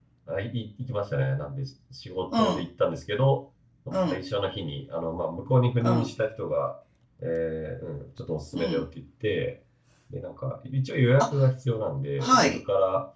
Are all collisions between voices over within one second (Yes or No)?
Yes